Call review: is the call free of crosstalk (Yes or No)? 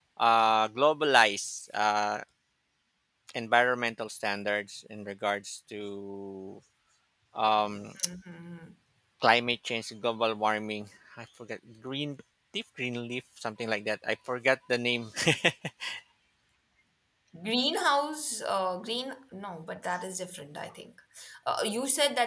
Yes